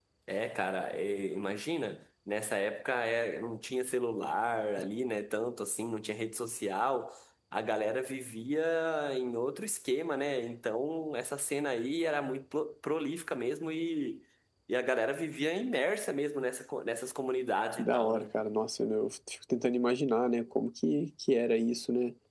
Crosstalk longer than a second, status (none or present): none